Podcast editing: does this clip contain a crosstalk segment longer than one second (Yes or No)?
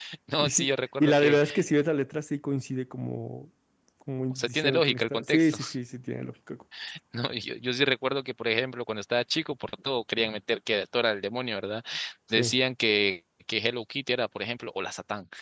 Yes